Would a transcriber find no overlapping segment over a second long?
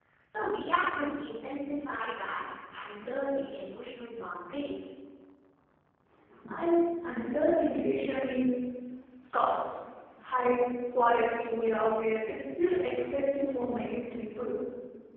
Yes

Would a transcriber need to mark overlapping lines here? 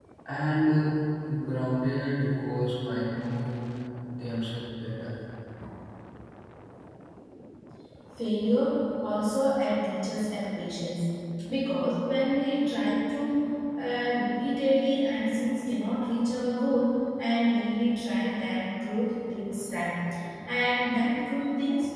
No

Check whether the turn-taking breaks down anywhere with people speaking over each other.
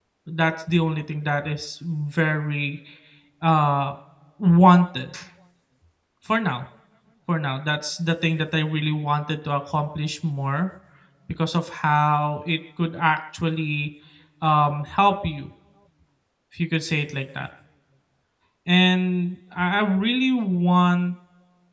No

